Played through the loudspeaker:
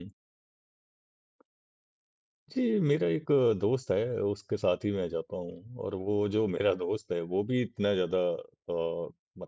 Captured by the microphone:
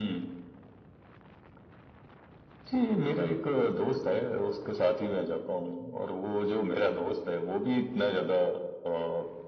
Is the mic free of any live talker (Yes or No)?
Yes